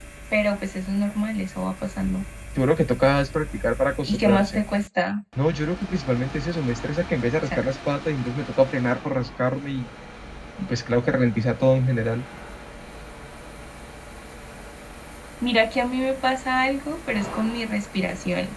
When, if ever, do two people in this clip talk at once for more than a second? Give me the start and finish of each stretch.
none

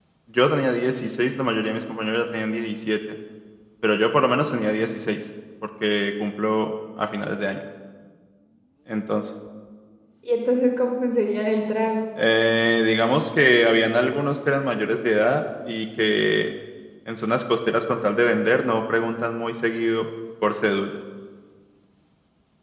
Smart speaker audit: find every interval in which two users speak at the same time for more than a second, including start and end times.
none

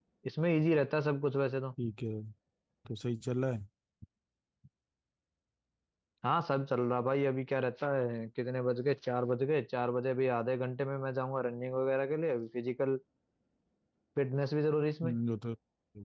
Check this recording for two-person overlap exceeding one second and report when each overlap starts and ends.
none

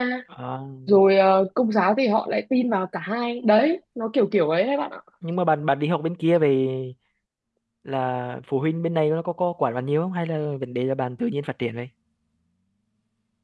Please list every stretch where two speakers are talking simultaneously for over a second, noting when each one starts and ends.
none

